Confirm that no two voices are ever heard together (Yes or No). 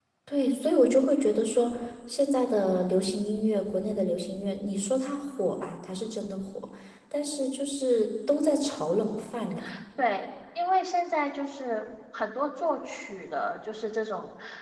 Yes